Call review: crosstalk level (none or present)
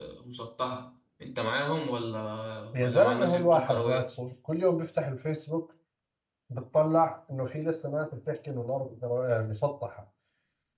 present